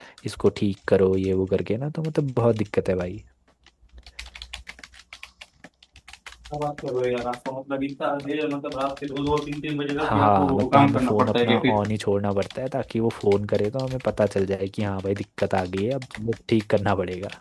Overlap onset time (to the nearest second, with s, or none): 10 s